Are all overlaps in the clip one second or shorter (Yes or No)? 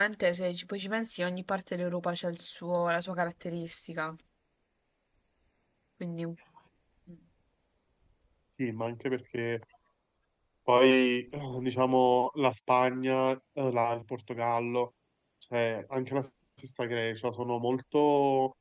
Yes